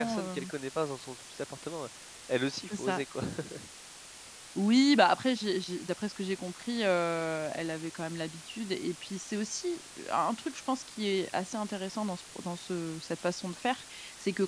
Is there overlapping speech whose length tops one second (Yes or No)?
No